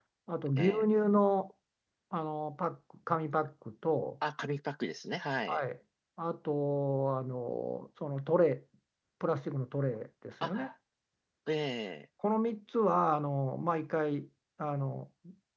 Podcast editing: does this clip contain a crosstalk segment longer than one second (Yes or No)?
No